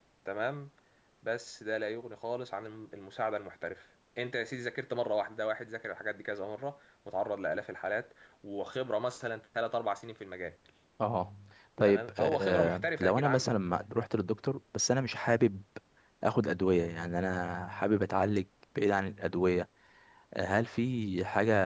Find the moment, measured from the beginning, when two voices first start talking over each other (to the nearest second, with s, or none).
12 s